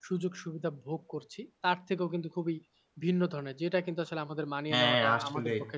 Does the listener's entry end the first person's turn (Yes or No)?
No